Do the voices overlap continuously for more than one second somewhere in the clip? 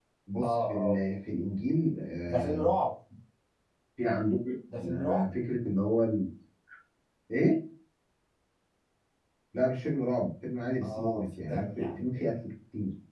Yes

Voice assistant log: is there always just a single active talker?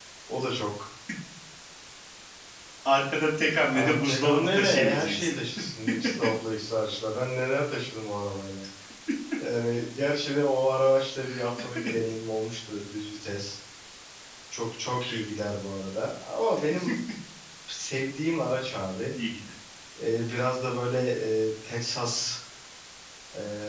No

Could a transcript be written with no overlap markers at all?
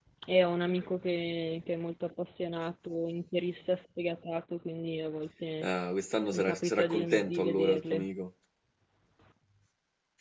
No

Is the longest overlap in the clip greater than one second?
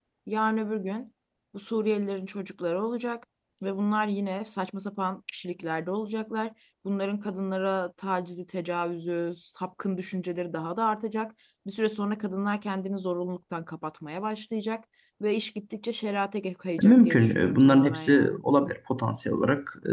Yes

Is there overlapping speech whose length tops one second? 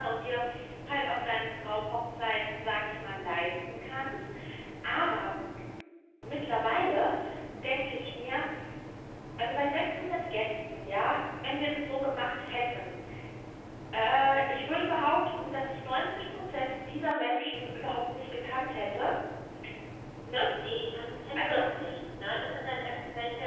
No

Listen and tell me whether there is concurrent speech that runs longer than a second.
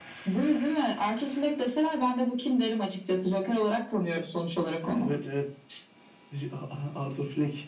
No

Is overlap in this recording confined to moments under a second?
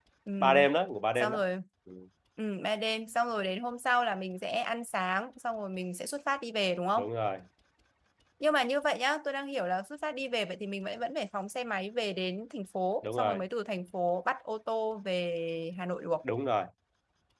Yes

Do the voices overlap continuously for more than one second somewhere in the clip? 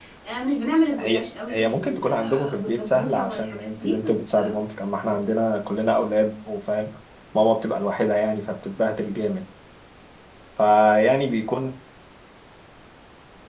Yes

